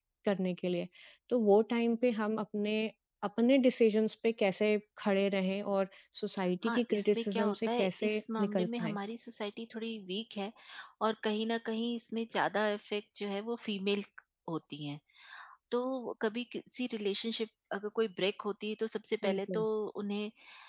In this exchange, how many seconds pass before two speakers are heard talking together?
6.6 s

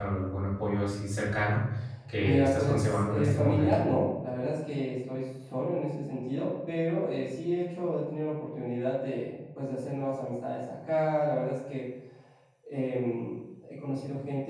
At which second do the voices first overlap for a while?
2.2 s

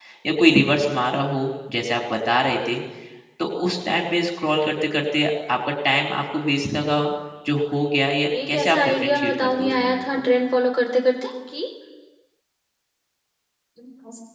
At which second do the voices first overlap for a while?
8.3 s

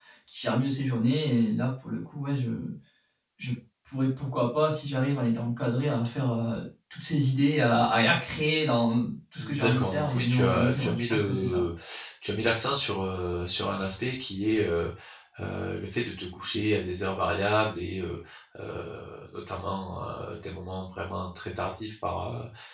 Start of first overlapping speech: 9.4 s

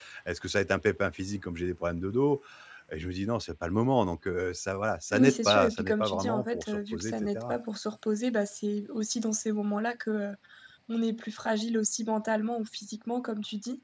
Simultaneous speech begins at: 5.1 s

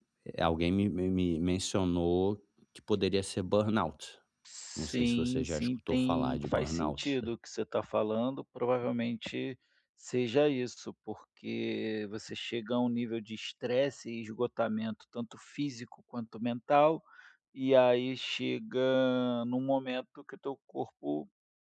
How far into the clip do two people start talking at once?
4.8 s

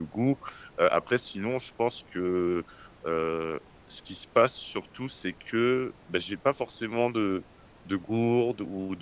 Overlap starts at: none

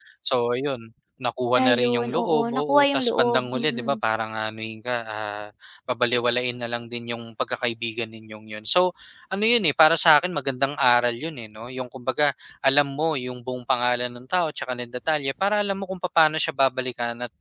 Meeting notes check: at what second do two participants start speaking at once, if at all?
1.6 s

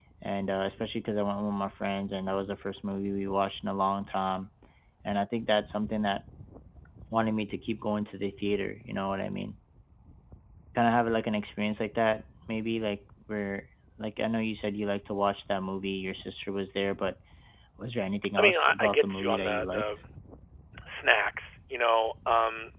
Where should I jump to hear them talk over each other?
18.4 s

